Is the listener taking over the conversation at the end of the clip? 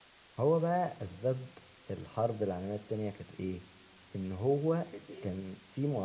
No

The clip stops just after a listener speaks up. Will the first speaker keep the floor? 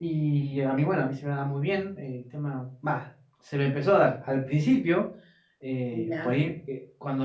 Yes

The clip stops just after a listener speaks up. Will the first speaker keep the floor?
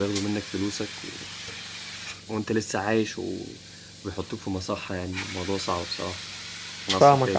No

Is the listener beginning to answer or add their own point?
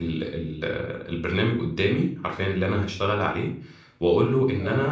No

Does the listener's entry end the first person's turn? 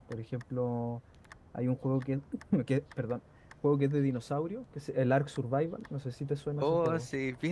Yes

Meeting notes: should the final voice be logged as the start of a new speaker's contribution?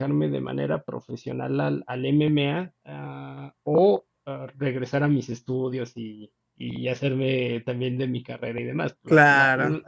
No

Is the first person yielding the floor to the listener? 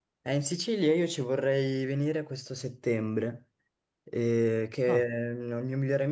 No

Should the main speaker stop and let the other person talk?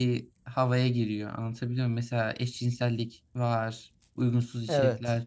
No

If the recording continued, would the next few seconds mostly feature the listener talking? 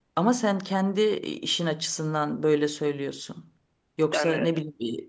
No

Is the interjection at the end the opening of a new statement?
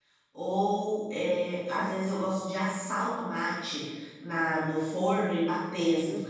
Yes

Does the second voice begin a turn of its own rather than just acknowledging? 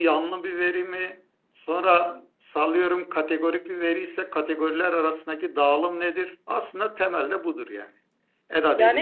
Yes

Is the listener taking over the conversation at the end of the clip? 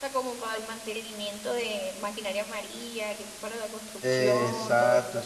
Yes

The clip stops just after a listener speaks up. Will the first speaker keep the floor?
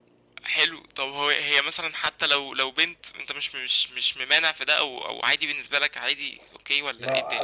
No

